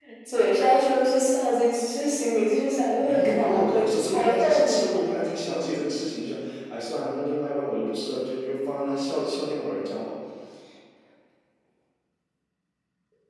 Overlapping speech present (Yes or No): Yes